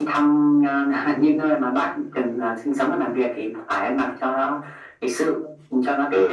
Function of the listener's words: taking over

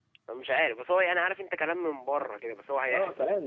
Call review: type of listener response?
taking over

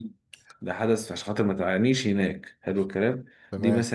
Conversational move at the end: listening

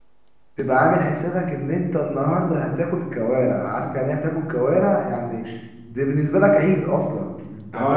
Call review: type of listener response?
taking over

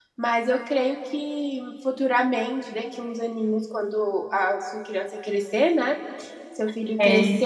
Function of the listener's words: listening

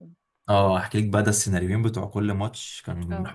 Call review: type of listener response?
listening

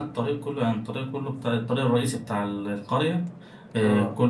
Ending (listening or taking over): listening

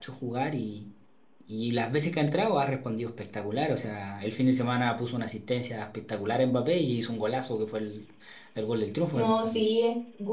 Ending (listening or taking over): taking over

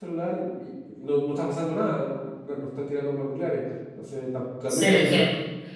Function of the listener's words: taking over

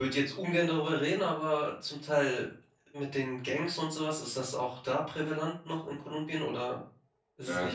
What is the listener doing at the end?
taking over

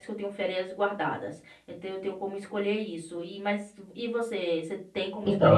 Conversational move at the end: taking over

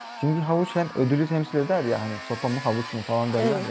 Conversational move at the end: listening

